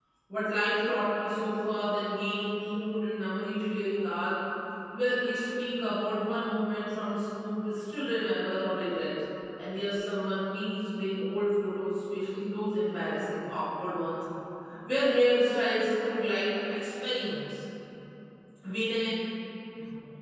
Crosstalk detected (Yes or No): No